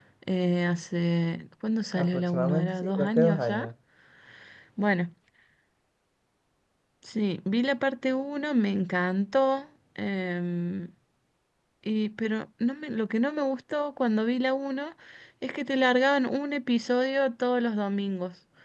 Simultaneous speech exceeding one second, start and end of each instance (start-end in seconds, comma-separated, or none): 1.9-3.7